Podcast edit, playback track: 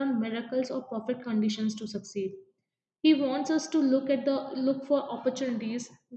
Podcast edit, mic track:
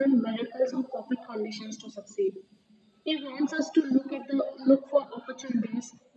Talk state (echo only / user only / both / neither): echo only